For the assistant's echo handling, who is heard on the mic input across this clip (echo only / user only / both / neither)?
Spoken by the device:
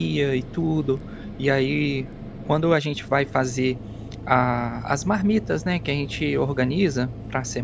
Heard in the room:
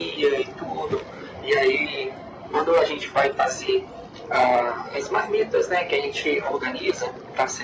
echo only